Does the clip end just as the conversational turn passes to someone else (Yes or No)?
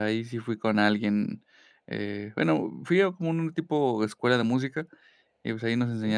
No